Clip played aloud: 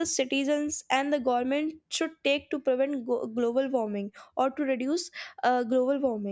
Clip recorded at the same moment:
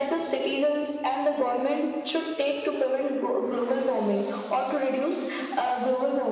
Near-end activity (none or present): none